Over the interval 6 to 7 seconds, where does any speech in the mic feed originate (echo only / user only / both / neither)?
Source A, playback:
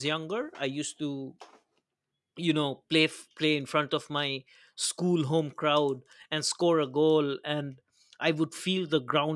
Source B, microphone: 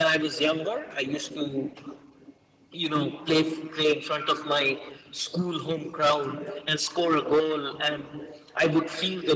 echo only